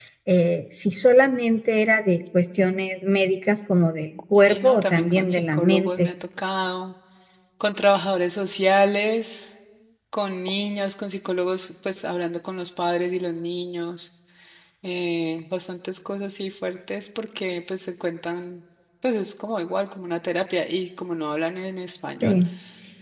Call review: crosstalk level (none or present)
present